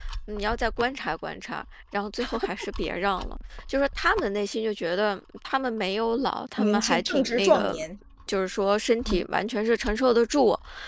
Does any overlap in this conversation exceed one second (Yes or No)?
Yes